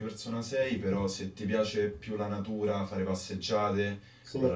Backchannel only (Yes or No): Yes